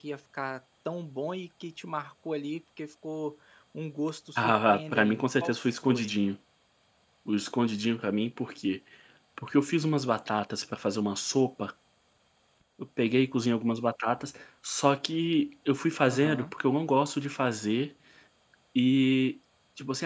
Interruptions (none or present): present